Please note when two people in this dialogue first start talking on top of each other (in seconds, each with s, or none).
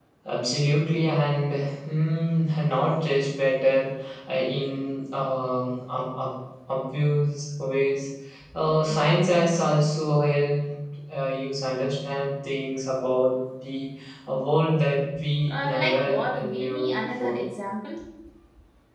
15.5 s